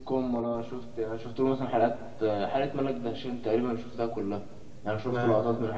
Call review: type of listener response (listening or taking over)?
listening